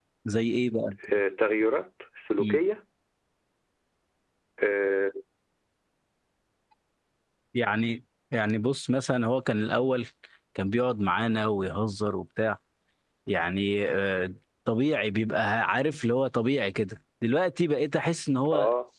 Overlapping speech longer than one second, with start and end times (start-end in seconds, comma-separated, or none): none